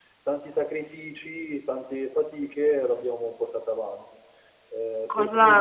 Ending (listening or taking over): taking over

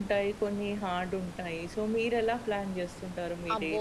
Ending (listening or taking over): taking over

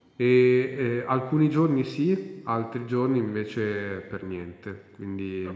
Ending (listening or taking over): taking over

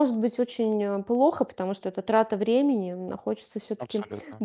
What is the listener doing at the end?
listening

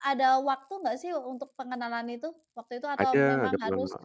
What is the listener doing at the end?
taking over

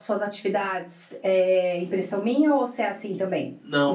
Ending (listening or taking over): taking over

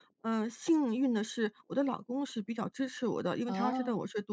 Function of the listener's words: listening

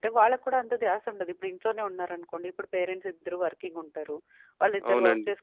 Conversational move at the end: listening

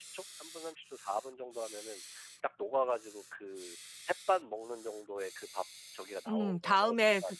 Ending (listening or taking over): taking over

